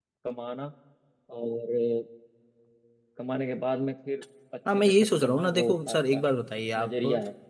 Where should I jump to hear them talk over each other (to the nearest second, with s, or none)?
5 s